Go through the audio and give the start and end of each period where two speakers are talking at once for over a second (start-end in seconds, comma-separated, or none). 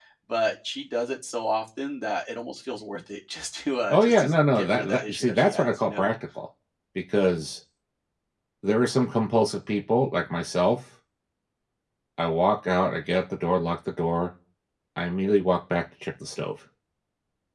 3.9-6.1